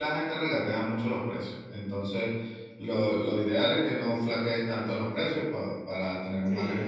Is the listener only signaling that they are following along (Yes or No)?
No